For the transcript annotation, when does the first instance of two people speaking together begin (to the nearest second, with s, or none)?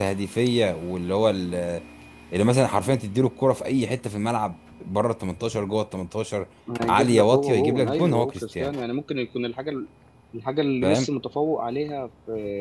7 s